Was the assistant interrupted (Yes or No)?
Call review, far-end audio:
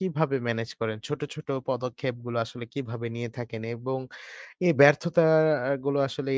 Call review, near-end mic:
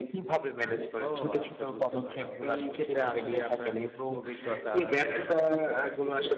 Yes